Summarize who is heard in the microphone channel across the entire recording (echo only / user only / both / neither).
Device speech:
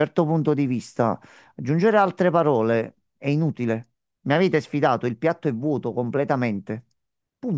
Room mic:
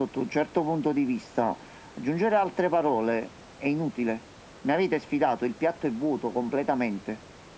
echo only